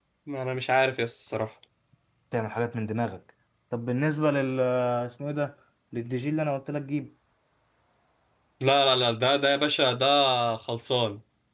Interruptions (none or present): none